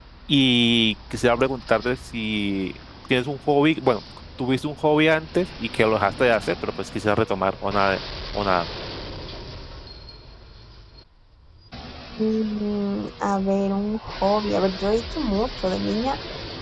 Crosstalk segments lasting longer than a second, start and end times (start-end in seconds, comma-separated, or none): none